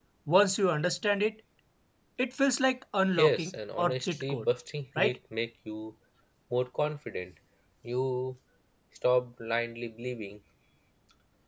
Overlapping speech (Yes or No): Yes